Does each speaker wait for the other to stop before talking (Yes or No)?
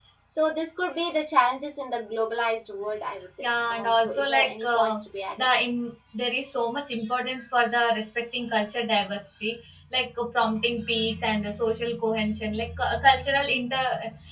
No